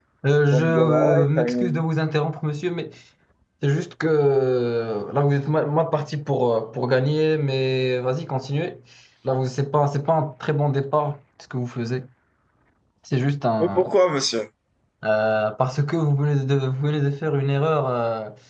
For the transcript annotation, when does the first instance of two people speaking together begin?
1 s

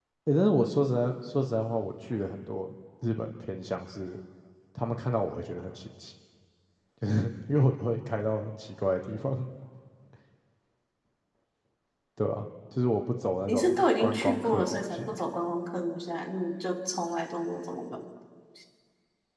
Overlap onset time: 13 s

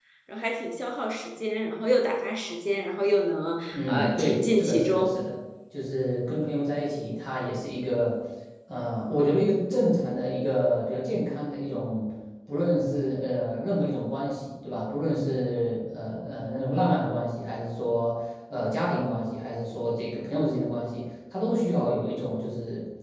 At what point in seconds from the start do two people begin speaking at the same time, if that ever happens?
4 s

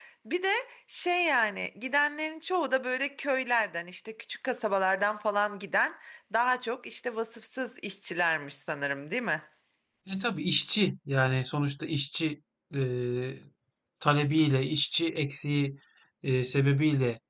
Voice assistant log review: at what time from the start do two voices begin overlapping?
none

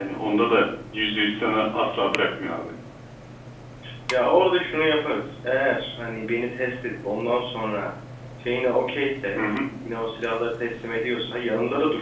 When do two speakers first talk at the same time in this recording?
none

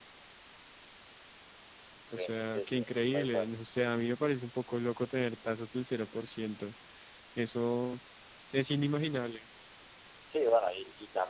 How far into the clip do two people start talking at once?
2 s

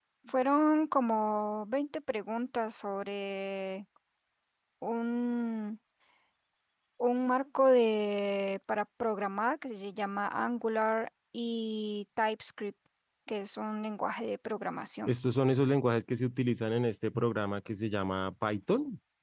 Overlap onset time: none

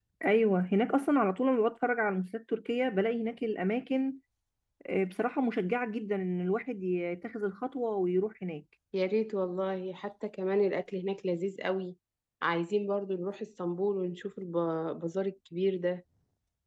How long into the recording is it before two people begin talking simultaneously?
none

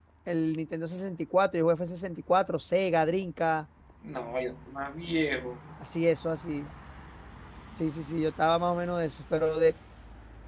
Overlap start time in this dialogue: none

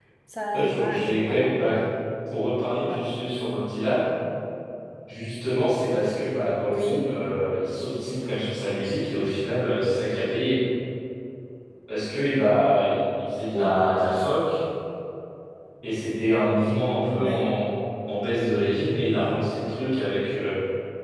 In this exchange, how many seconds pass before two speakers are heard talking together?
1 s

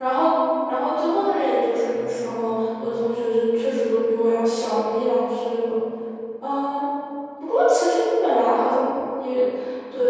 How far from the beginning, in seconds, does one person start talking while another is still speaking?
none

